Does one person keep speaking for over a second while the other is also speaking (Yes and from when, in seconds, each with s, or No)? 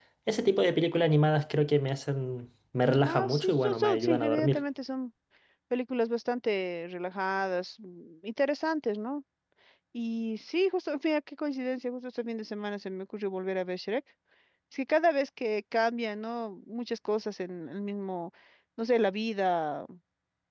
Yes, from 3.0 s